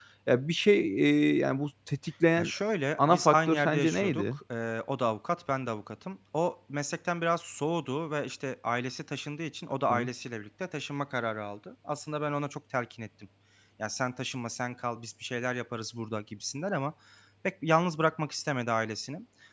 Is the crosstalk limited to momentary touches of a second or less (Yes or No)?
No